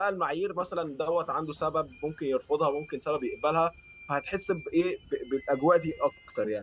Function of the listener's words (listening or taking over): taking over